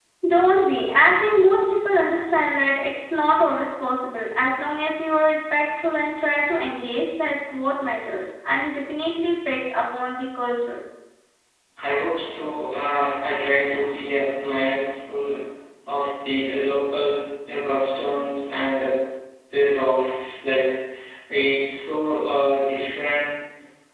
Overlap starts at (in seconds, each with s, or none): none